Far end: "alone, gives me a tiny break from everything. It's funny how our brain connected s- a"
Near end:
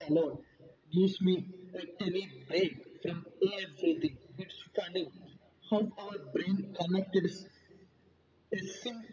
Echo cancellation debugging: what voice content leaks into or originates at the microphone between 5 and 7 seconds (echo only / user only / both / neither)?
echo only